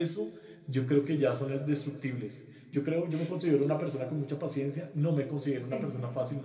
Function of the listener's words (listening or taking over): listening